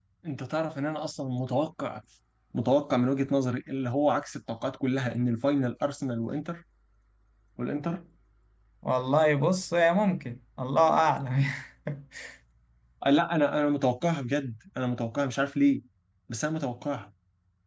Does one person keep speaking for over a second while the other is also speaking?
No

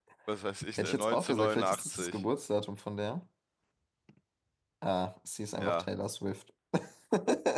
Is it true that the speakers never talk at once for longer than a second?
No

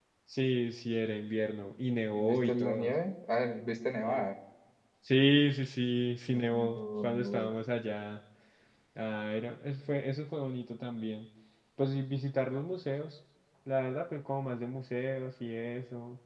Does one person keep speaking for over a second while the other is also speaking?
Yes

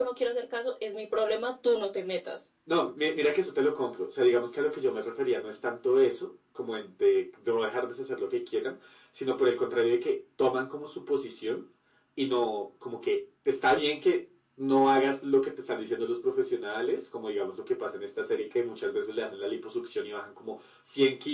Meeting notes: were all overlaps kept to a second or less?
Yes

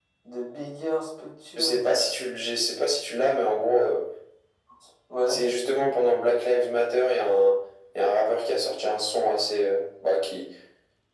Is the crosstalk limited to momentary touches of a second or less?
Yes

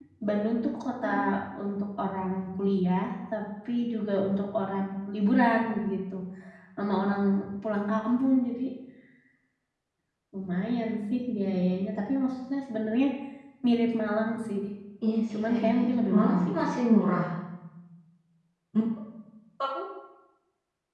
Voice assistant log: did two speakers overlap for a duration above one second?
Yes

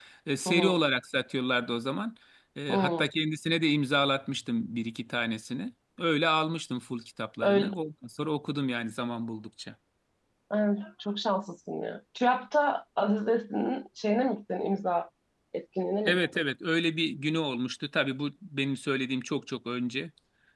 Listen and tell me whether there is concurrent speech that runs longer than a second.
No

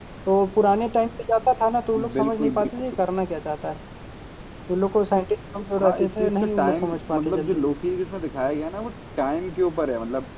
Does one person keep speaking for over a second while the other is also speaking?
Yes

